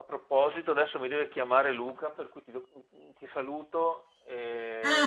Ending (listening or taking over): taking over